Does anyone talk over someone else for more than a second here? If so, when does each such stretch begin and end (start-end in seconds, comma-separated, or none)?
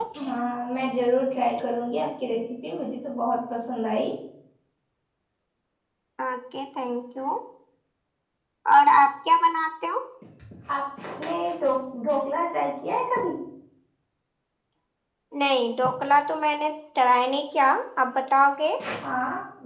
none